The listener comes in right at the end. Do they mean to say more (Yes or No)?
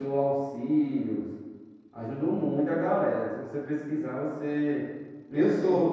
No